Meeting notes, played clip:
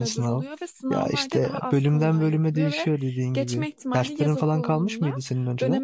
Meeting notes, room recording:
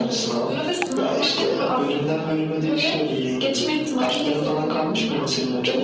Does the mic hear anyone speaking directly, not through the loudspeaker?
No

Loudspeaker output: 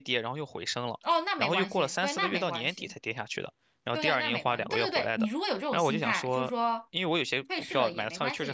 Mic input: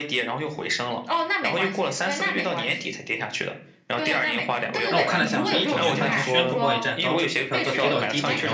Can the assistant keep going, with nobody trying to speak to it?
No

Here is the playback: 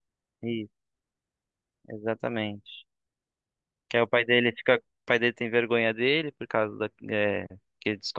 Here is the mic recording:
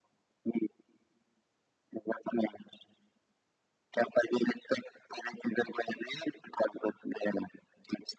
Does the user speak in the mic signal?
No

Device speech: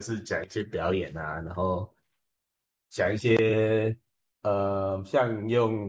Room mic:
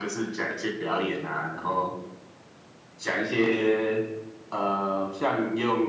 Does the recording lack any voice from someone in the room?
Yes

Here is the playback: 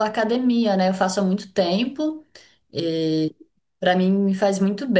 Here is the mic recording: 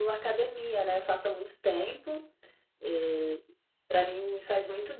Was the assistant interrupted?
No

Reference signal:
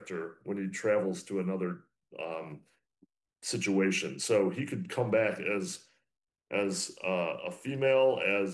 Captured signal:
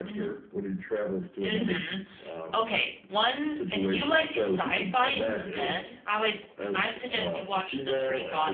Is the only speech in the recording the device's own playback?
No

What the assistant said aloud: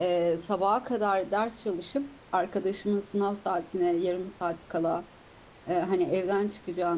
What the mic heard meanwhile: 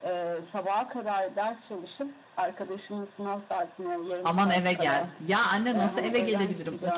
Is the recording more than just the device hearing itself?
Yes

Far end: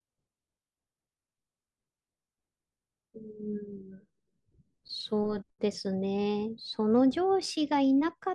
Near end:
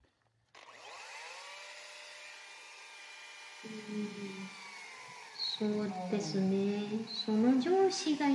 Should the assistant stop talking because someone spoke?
Yes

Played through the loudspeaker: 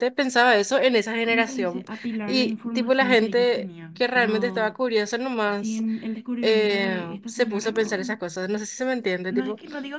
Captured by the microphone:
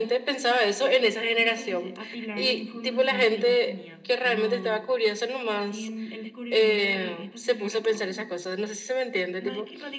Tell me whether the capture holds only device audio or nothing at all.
Yes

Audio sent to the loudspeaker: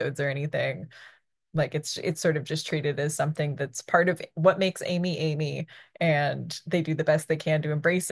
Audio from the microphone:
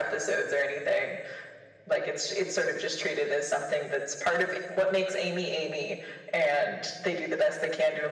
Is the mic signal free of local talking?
Yes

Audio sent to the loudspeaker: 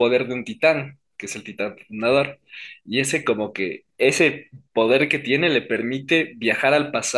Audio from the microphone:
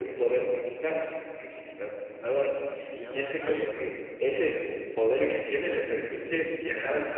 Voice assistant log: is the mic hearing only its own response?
No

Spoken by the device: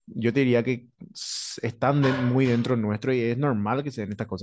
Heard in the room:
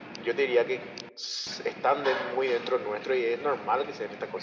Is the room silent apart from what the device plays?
Yes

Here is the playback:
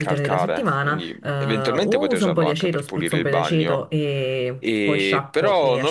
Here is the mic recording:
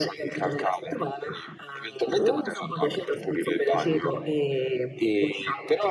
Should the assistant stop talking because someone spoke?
No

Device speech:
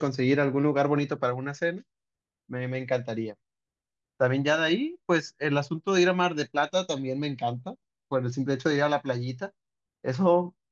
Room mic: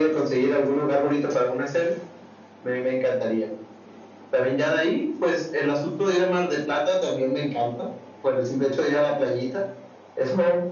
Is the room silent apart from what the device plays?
Yes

